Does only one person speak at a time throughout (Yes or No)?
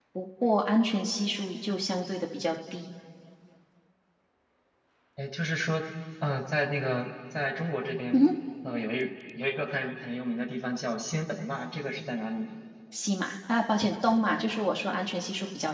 Yes